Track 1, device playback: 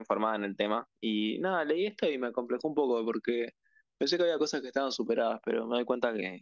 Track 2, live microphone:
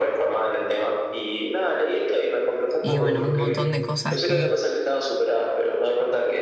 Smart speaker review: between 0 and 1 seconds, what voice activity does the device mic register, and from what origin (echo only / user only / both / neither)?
echo only